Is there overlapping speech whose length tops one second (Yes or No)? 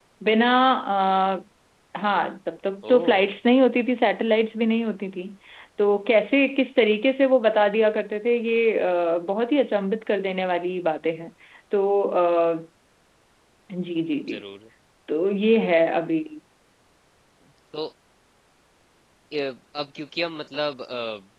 No